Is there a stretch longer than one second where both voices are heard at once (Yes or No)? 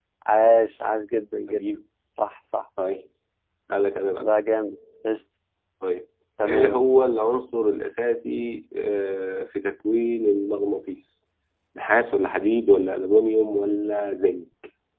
No